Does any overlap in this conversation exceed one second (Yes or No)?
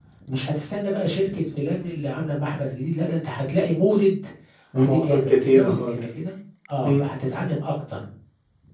Yes